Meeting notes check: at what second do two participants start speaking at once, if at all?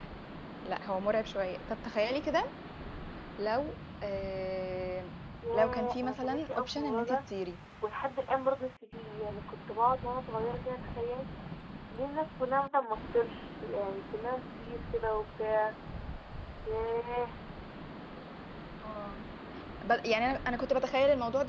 5.4 s

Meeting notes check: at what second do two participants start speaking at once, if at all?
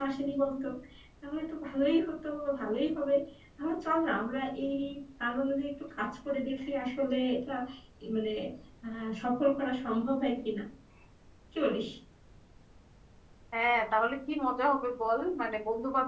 none

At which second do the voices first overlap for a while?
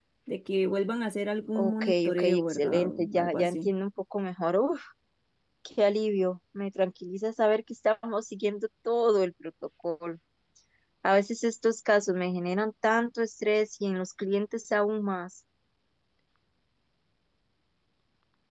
1.6 s

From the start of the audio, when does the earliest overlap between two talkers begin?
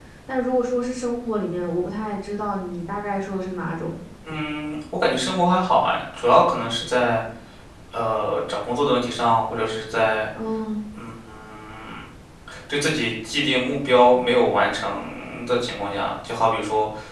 none

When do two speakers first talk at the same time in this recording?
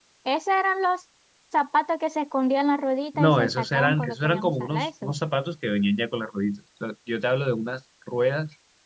3.1 s

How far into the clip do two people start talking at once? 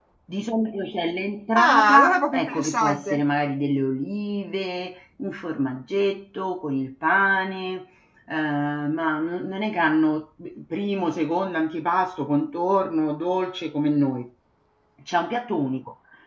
1.6 s

